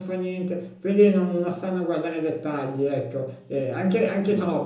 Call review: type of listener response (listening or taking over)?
listening